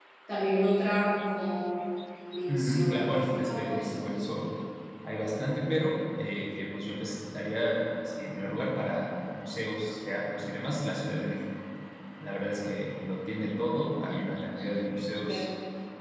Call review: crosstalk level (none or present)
present